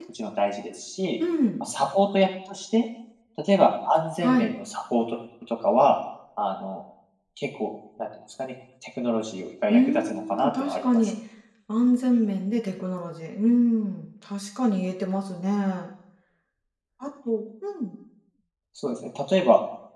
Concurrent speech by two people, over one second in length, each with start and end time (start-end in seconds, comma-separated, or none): 9.7-11.1